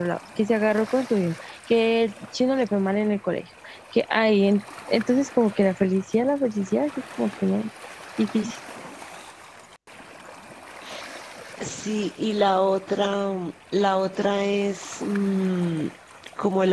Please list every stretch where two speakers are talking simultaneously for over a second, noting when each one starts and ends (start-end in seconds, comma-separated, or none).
none